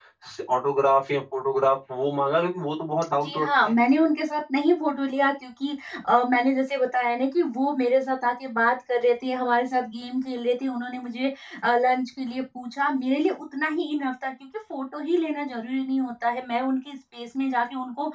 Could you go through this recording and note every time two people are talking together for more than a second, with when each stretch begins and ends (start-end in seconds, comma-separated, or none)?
none